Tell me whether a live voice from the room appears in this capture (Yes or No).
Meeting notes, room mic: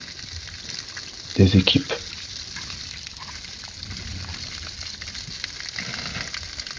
Yes